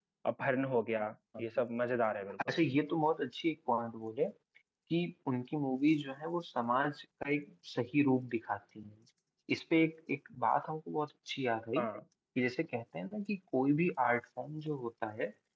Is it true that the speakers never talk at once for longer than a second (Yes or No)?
Yes